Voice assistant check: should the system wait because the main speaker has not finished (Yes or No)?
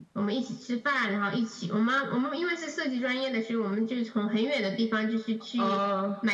Yes